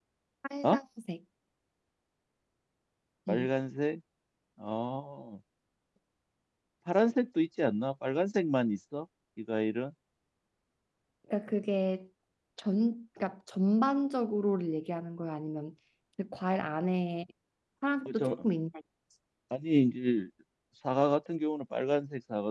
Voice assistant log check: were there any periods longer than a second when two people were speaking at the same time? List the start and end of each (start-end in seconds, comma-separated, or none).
none